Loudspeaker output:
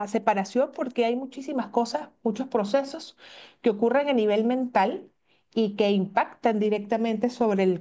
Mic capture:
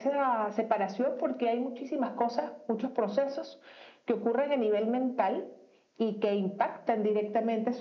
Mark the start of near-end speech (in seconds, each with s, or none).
none